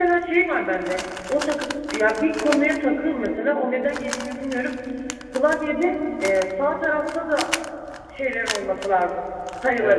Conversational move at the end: taking over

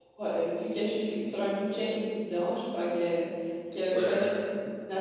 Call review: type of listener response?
listening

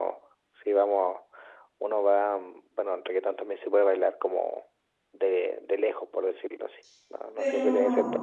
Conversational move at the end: taking over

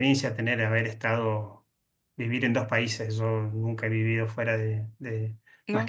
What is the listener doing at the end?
listening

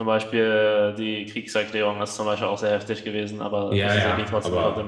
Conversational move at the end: taking over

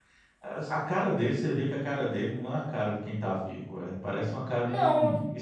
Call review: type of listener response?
taking over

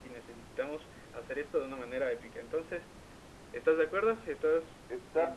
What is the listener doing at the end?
taking over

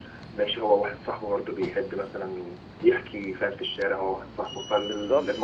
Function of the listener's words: taking over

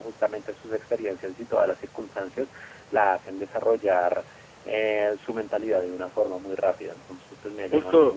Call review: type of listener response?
taking over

